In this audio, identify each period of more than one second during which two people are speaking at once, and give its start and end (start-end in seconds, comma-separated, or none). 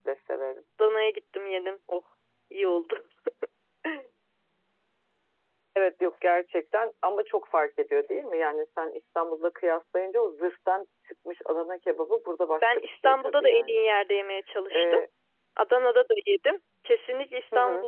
12.6-13.9